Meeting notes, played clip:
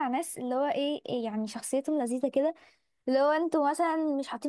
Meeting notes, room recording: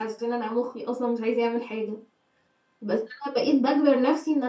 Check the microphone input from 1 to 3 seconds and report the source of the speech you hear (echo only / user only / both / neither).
user only